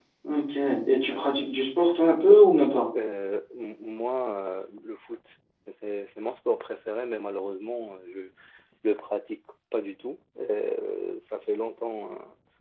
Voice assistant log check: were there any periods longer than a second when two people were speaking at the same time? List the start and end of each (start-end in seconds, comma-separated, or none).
none